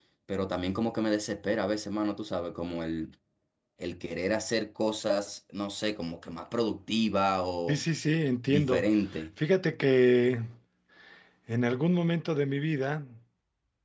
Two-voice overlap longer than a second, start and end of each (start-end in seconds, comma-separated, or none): none